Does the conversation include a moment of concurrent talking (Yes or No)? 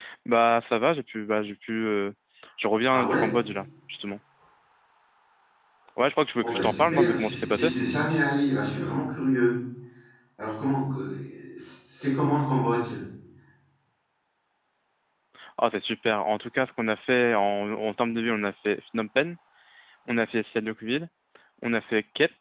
Yes